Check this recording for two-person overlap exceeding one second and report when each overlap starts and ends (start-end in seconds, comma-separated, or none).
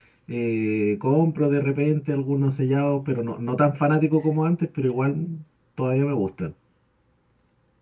none